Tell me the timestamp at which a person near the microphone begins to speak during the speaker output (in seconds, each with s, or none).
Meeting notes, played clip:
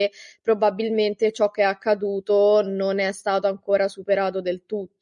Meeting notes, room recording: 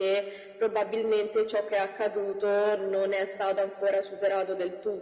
none